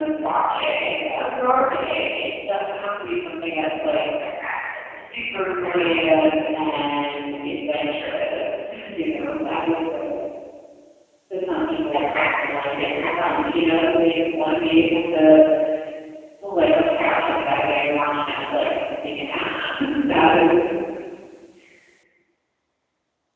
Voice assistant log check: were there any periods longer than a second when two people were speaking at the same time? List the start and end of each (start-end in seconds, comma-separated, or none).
11.9-13.4